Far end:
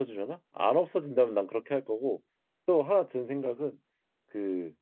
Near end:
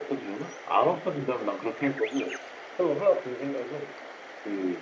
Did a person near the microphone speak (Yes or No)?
No